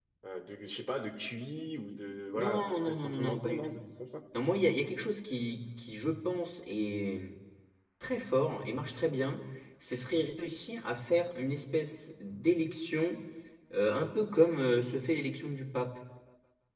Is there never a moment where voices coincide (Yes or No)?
No